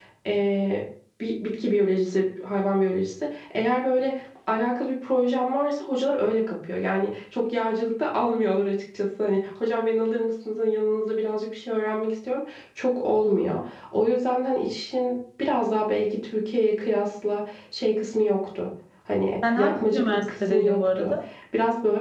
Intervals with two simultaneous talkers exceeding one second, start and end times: 19.6-21.1

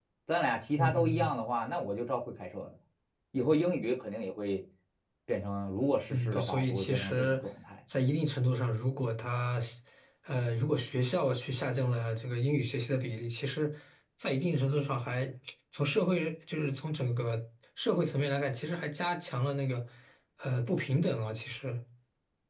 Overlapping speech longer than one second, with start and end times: 6.1-7.4

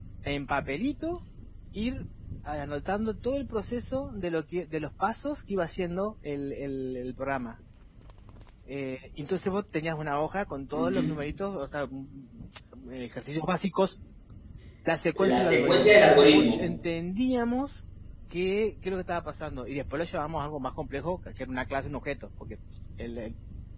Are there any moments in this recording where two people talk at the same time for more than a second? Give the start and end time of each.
15.2-16.7

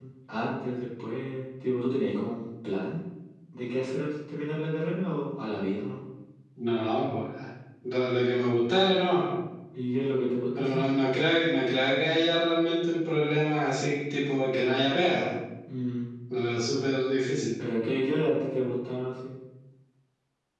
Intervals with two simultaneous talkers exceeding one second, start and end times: none

